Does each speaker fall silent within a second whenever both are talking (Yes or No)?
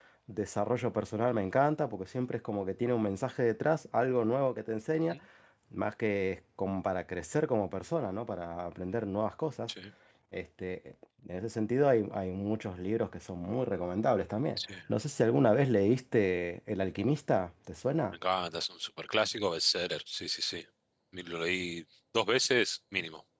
Yes